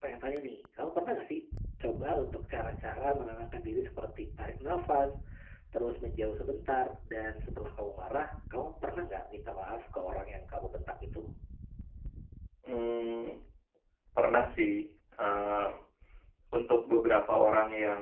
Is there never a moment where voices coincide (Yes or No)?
Yes